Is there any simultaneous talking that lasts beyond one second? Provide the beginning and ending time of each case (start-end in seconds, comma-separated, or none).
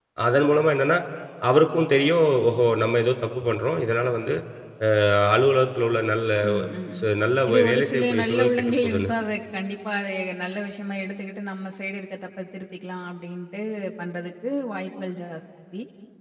7.5-9.1